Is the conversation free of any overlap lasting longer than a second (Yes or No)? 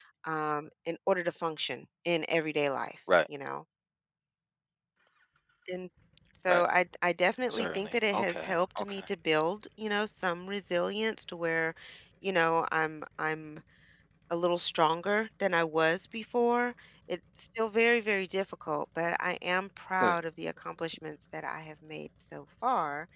No